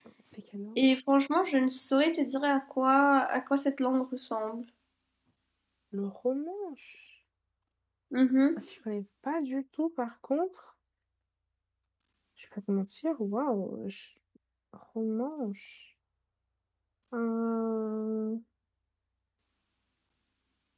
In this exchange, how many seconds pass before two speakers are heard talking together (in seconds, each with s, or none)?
none